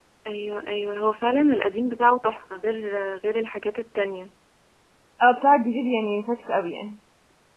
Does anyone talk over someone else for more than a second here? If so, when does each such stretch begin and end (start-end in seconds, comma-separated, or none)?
none